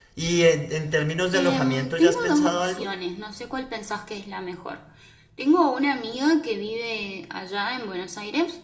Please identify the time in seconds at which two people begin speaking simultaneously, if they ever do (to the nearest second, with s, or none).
1 s